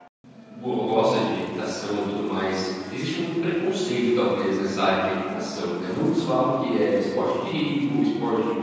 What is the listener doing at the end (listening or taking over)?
listening